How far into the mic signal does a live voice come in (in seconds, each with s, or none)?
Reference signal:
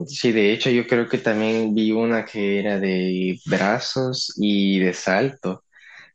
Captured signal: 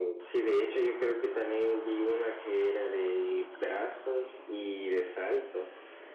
none